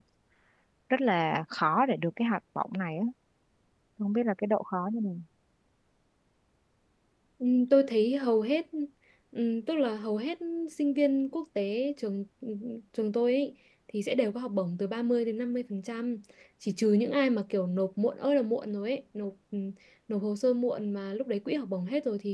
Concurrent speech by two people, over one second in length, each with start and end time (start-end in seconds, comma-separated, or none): none